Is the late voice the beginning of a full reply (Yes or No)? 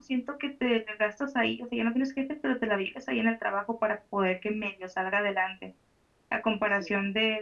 No